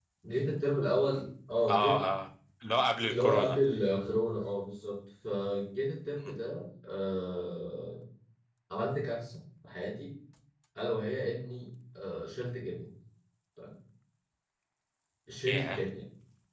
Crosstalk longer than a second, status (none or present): none